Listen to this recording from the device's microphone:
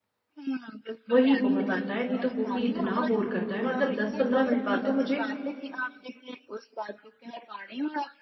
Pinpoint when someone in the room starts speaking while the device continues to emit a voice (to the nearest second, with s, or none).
1 s